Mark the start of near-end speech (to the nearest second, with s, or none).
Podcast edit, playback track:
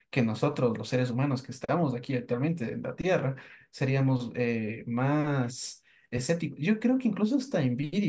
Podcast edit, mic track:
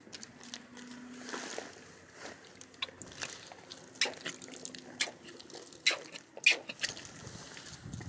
none